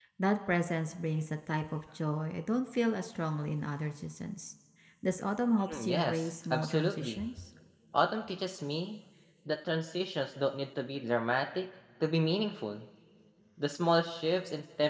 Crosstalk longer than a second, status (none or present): present